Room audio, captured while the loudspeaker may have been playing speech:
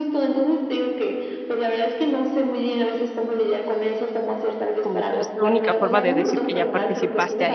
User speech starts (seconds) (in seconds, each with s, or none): 4.8 s